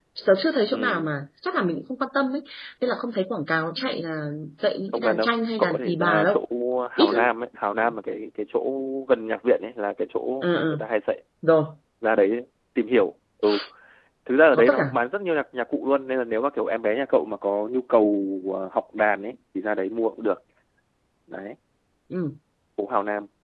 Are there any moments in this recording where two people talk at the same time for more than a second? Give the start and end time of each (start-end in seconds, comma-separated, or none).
4.9-6.4